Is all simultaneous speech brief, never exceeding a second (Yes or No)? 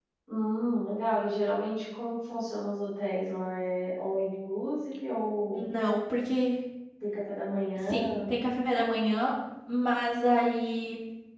Yes